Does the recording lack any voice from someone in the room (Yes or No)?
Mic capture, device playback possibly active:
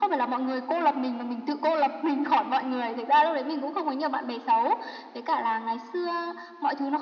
Yes